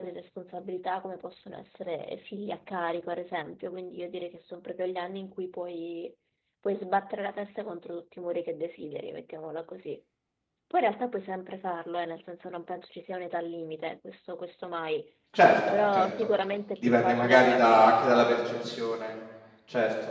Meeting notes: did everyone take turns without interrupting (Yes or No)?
No